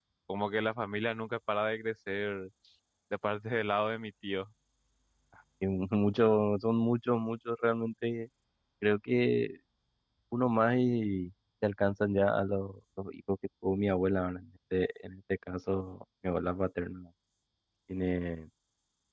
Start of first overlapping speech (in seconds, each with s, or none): none